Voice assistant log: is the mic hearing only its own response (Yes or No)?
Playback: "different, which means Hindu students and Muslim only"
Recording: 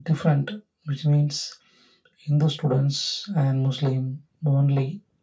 Yes